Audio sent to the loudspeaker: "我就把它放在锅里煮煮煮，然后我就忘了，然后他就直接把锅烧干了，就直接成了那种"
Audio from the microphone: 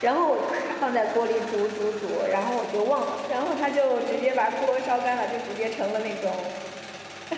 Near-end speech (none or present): none